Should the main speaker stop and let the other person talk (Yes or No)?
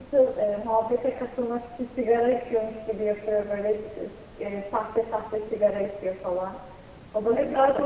Yes